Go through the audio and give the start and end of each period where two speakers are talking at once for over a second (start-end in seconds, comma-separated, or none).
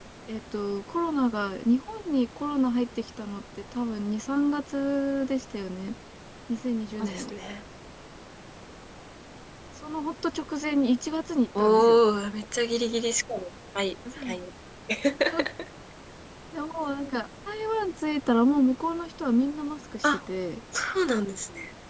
none